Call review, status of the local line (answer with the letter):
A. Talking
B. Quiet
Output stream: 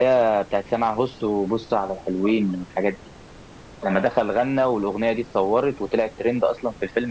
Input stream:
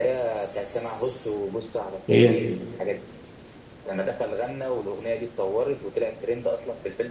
A